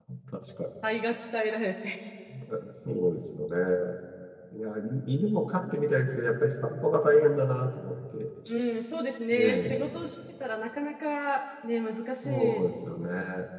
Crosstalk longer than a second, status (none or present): present